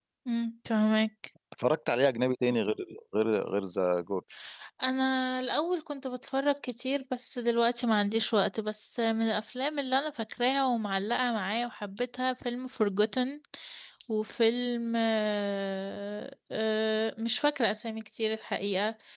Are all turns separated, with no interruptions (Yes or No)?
Yes